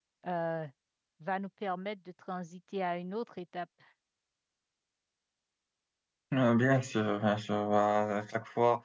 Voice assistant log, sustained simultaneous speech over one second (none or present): none